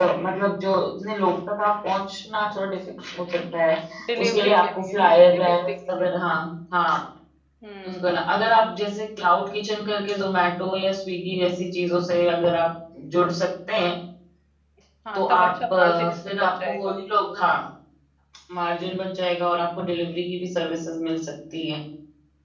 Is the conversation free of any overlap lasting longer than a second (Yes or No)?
No